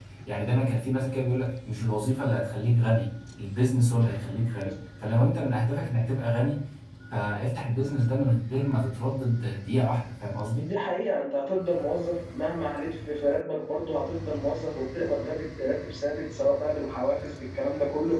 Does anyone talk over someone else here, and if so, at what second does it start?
none

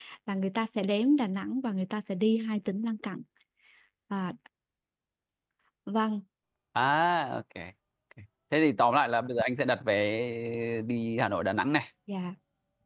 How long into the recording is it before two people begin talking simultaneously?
none

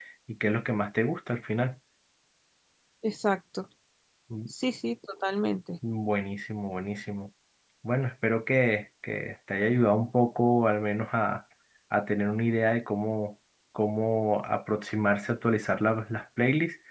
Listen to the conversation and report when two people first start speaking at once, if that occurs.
none

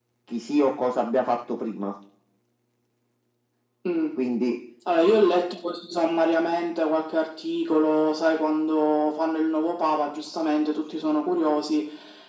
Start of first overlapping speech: none

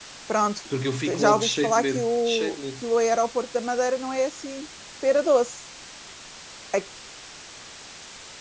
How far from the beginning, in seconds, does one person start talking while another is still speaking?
1.2 s

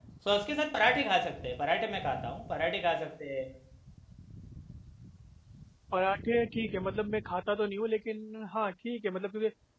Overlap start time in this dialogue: none

